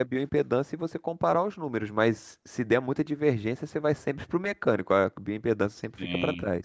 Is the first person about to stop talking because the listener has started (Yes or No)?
Yes